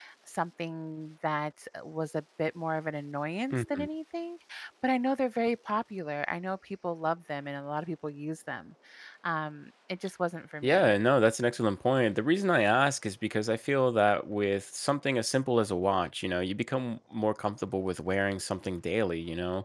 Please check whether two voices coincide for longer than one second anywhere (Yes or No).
No